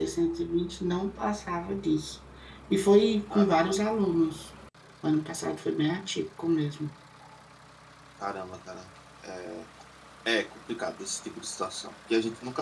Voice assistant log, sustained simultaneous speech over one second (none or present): none